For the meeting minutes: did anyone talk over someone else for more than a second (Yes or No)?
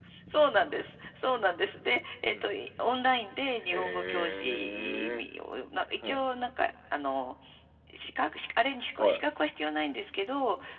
Yes